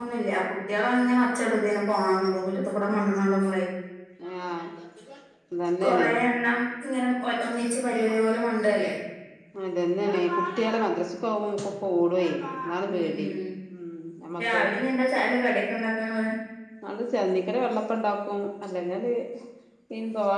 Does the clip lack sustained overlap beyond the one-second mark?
Yes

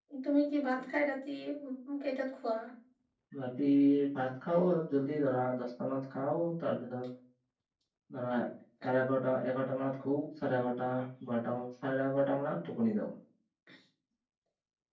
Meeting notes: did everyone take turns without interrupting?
Yes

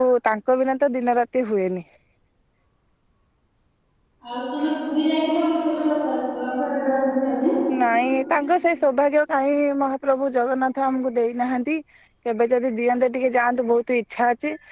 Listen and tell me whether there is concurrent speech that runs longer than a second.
No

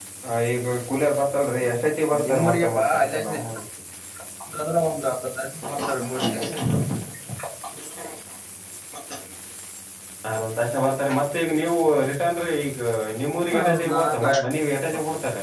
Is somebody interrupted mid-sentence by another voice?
Yes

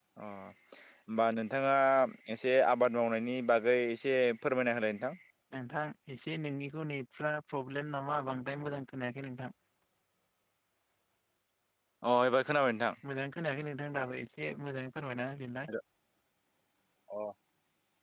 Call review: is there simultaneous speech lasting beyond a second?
No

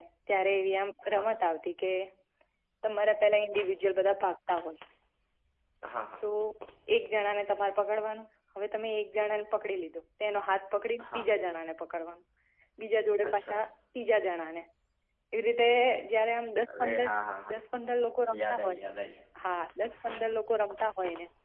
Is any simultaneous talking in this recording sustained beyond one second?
No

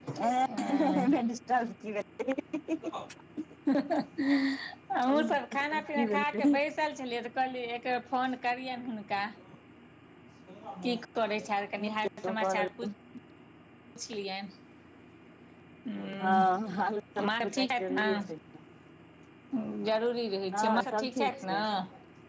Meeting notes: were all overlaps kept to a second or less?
No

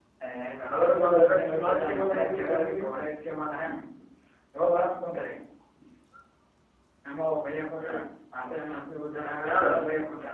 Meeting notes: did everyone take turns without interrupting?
No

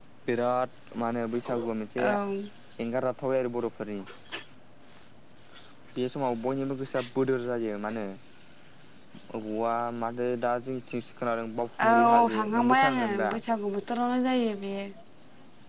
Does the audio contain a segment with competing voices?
Yes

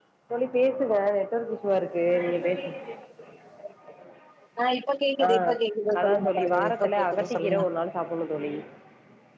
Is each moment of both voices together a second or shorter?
No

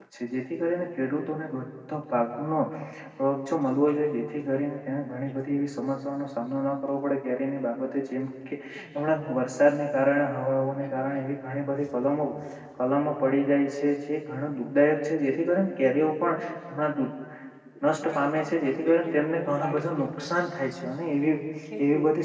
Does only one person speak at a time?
No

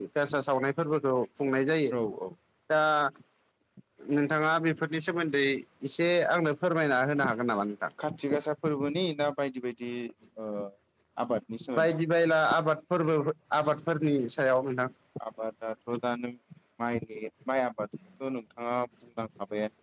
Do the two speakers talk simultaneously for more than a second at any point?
No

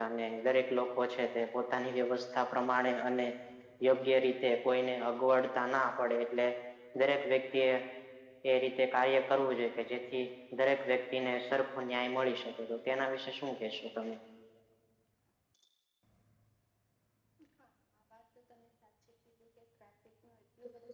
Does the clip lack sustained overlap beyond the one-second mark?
Yes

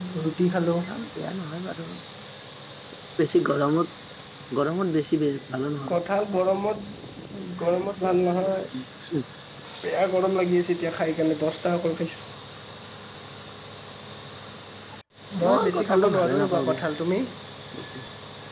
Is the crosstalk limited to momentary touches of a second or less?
No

